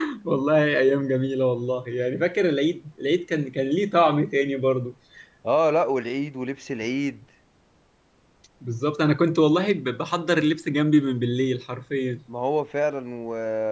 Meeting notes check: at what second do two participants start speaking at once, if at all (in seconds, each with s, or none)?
none